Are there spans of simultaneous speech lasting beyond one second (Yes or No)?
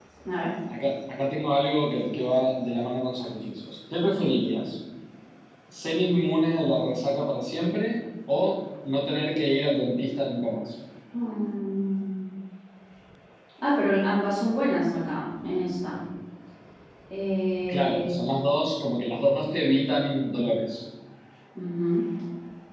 No